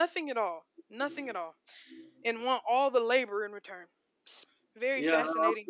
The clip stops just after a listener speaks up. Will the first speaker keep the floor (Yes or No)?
No